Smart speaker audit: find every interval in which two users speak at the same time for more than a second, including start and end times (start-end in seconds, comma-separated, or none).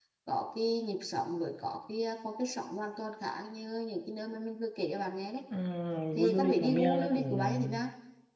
6.3-7.8